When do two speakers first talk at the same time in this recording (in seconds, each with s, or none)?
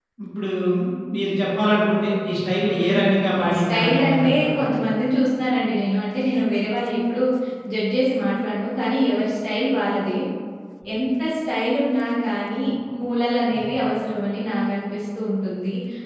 2.6 s